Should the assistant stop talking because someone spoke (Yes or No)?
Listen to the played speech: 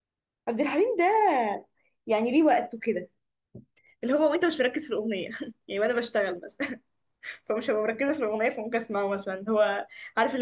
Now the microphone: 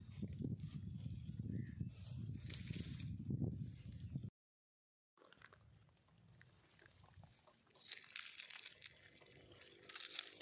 No